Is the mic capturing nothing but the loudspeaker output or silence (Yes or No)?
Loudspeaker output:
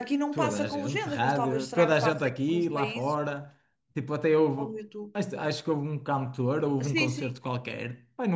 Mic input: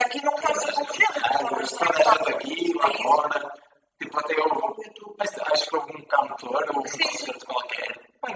Yes